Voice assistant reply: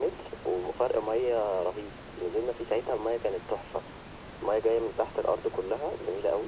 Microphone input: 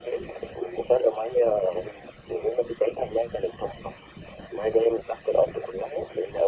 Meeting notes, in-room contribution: none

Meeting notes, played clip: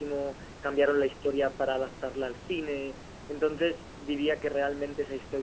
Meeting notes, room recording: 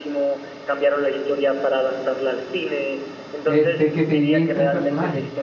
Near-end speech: present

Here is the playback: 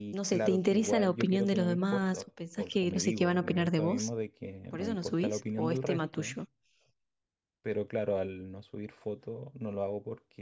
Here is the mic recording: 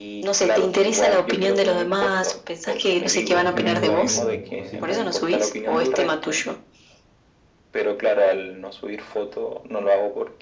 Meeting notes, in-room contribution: present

